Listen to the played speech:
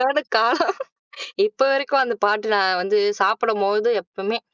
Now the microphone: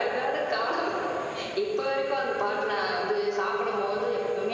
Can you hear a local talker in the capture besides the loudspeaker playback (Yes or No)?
No